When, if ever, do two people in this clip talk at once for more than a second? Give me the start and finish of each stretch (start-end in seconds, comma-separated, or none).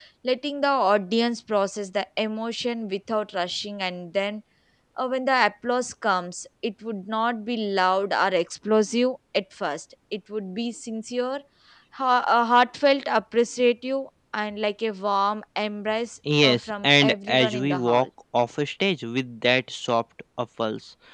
16.4-18.1